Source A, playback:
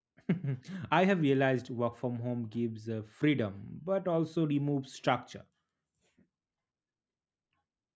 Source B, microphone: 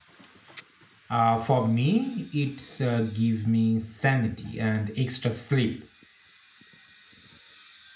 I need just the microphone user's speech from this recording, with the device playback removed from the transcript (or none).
Uh, for me, it's uh, give me sanity and extra sleep.